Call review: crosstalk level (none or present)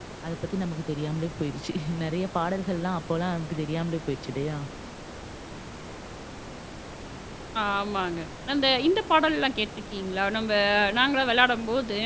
none